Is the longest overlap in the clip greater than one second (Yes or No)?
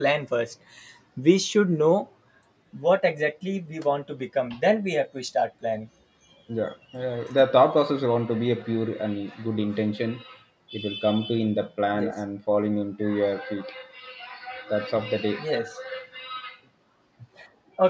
No